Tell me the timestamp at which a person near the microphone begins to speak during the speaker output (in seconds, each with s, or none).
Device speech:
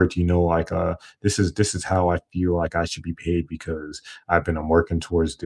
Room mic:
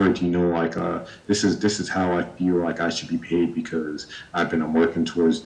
none